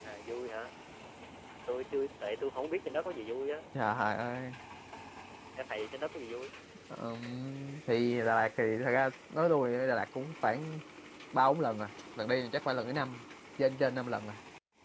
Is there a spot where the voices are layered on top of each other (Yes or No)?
No